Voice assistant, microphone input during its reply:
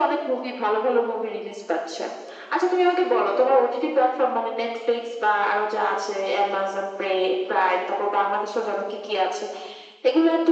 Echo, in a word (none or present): present